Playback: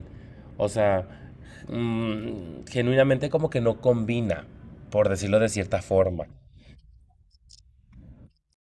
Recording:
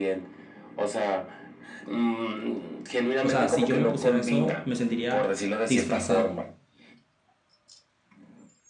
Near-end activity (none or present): present